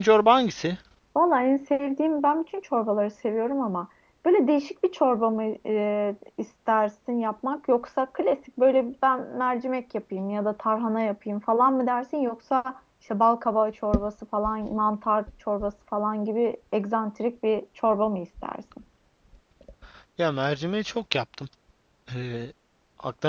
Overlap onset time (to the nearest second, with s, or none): none